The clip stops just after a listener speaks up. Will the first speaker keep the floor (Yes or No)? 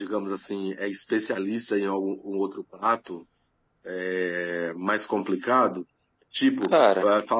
Yes